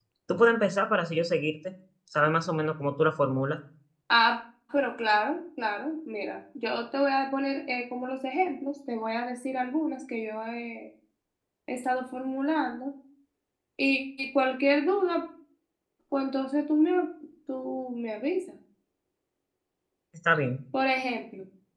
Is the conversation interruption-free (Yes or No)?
Yes